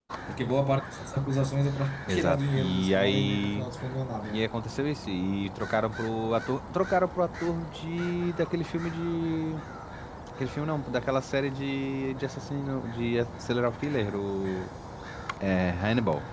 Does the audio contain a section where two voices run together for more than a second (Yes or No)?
Yes